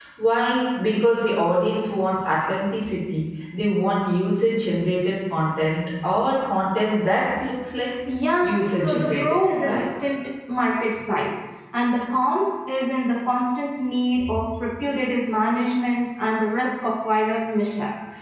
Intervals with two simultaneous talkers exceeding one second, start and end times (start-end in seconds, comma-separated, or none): 8.5-9.9